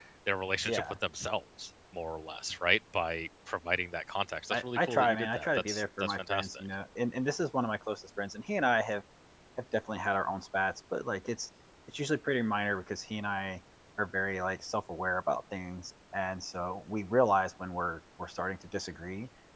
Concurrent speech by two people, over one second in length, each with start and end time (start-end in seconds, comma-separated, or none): 4.5-6.6